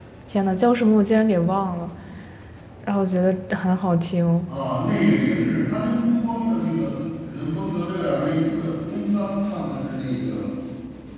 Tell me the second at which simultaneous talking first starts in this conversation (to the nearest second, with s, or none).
none